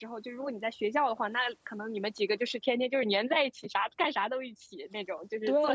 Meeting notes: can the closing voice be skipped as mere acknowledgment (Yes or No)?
No